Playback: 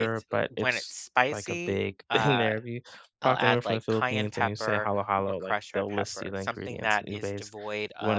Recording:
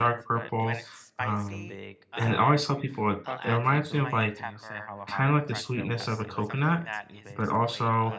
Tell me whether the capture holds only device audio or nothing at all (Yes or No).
No